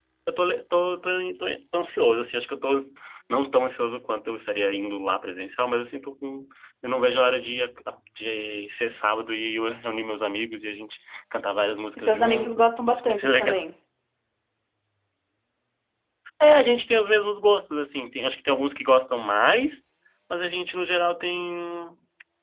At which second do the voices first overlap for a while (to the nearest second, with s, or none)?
12 s